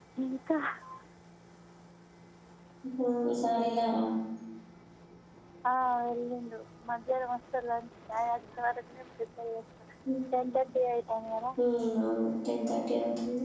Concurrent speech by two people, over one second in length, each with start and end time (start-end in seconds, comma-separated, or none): none